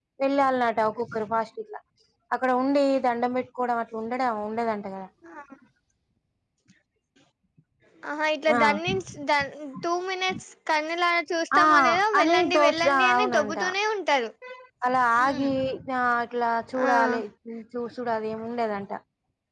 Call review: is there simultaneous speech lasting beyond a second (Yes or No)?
Yes